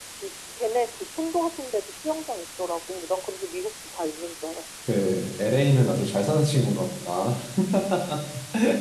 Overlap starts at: none

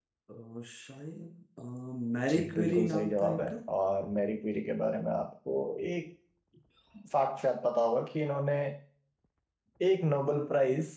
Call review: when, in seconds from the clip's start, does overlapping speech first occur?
2 s

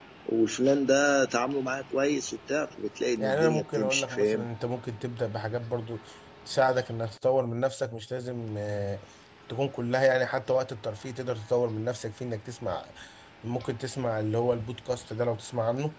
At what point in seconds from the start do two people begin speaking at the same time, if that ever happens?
3 s

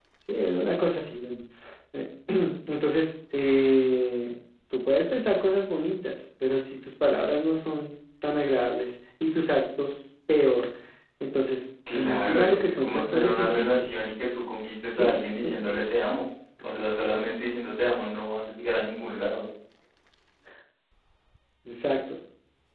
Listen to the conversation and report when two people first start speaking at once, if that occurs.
12 s

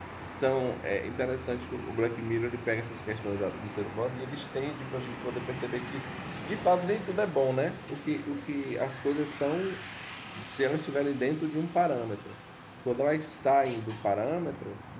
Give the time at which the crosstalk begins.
none

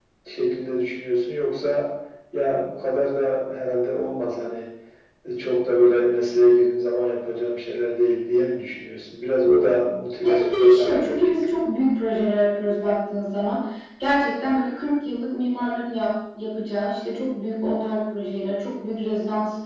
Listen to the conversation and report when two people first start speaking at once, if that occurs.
10 s

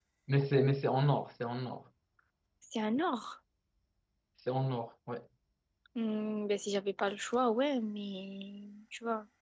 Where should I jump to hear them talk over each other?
none

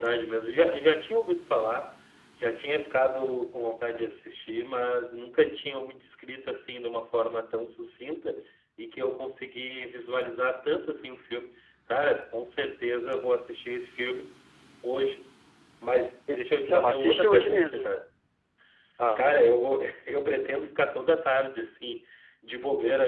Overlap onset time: 16 s

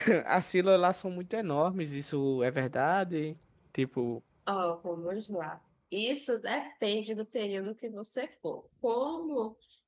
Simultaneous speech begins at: none

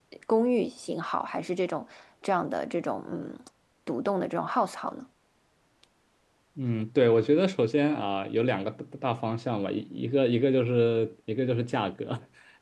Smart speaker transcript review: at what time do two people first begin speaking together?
none

